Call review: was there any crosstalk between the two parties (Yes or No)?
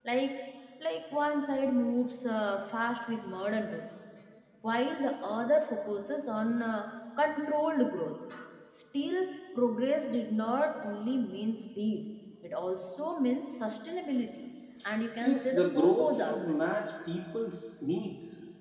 Yes